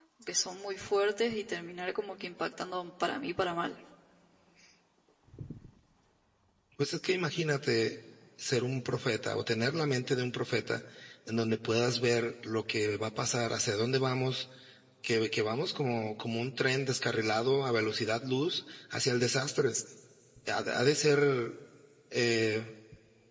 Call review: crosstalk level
none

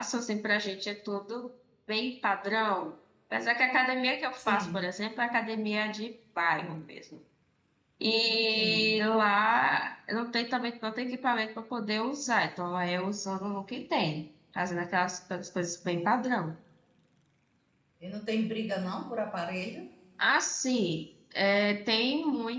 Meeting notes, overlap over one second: none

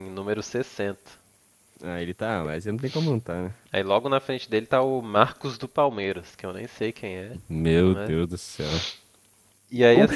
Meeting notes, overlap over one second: none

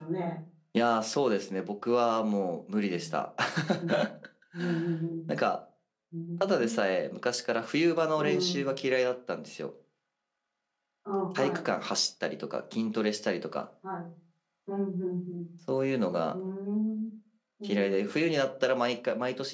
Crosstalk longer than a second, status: none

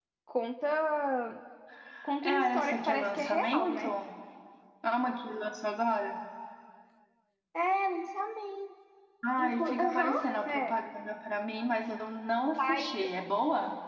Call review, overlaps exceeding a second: present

